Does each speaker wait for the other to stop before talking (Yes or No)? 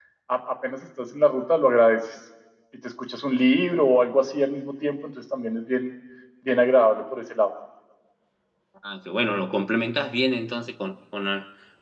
Yes